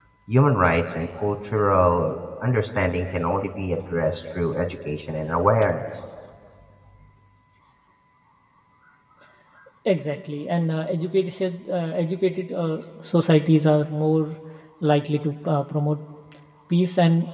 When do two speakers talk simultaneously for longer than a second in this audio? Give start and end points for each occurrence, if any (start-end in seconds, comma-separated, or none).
none